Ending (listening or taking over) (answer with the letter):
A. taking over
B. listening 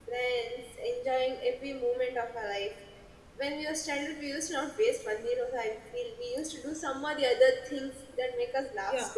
A